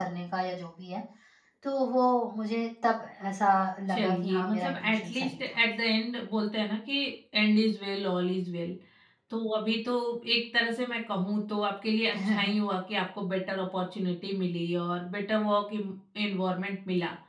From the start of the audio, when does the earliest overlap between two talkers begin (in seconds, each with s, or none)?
3.9 s